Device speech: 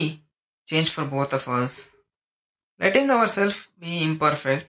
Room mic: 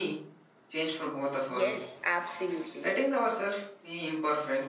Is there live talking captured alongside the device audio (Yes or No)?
Yes